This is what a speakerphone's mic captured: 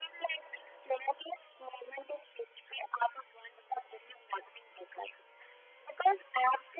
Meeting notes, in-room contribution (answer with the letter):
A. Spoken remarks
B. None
B